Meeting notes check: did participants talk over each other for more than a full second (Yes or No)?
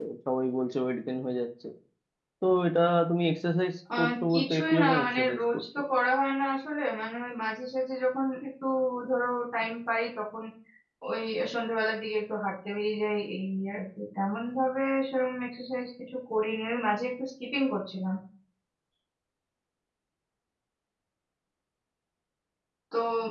Yes